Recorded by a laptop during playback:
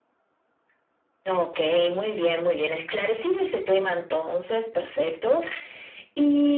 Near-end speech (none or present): none